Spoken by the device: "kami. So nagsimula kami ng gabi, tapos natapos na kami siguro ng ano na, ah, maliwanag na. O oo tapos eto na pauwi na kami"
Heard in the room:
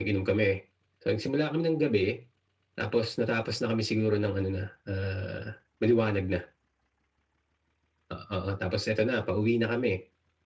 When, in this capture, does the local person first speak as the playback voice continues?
none

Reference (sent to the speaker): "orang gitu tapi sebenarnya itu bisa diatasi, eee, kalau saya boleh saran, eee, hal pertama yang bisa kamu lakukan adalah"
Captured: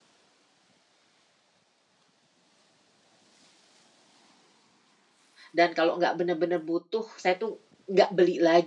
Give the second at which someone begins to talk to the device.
6 s

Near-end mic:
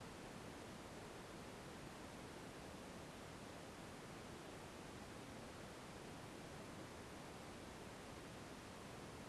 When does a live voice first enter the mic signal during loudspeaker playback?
none

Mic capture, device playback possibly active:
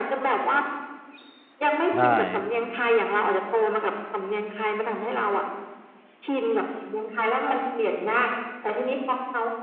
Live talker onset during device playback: 2 s

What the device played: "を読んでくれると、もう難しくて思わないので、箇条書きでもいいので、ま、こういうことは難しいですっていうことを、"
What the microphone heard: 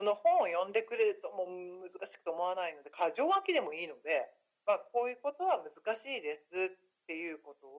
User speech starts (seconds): none

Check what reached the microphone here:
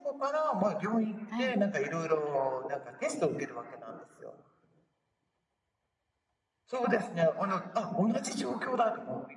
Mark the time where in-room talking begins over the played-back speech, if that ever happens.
1 s

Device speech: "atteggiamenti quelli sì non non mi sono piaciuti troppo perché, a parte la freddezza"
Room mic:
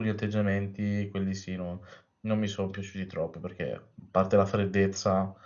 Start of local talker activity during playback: none

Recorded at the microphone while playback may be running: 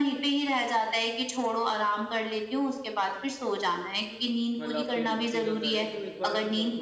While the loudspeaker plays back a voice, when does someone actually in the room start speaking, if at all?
5 s

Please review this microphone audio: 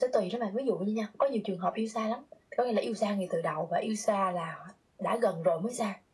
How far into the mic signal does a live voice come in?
none

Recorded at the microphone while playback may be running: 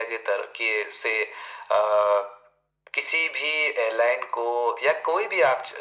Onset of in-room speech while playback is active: none

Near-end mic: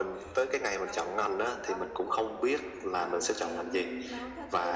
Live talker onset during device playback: none

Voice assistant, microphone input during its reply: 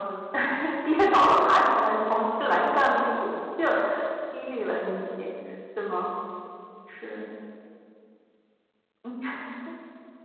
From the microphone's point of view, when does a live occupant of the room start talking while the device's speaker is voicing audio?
none

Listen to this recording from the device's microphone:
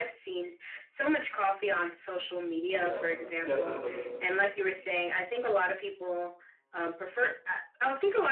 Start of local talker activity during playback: 3 s

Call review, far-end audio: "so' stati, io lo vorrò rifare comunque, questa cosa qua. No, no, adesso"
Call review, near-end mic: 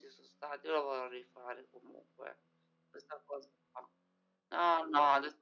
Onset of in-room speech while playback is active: none

